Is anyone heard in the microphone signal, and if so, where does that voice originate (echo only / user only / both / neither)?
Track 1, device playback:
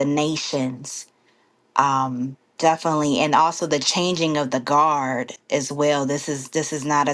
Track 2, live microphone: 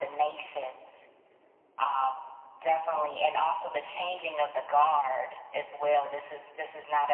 echo only